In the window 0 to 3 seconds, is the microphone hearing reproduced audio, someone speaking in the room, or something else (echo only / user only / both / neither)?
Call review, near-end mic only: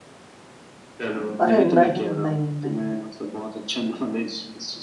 both